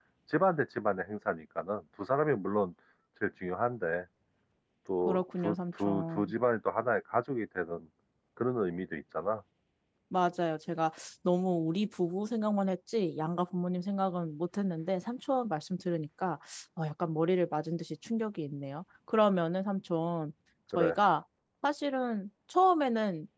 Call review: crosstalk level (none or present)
present